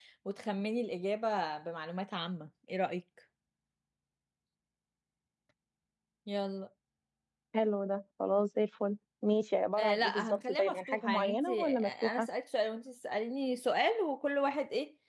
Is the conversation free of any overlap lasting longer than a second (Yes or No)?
No